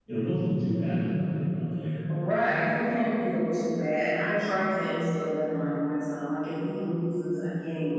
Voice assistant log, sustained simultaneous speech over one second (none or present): none